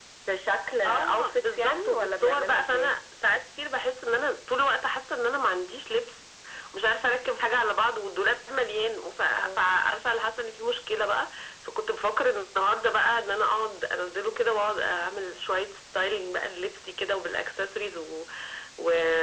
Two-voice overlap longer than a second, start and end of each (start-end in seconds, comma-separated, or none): 0.8-2.9